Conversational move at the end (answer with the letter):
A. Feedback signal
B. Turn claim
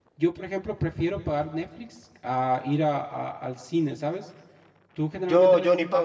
B